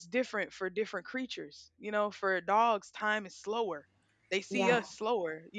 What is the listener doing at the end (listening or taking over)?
listening